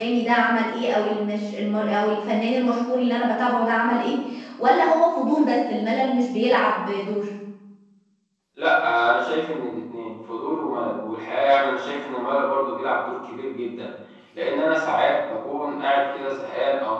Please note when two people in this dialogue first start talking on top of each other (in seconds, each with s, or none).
none